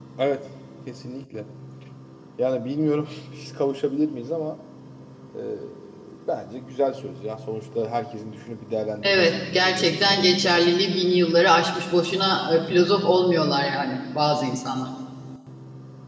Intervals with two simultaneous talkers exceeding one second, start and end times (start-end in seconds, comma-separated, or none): 9.0-10.6